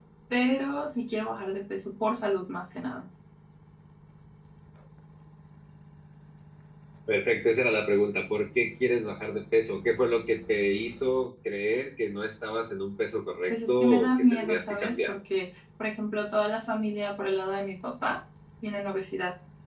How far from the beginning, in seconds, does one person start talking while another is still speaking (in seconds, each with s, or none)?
13.5 s